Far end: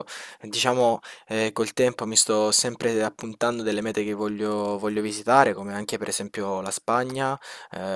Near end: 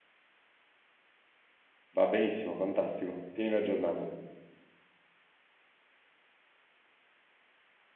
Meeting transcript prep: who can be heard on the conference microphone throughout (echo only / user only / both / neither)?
user only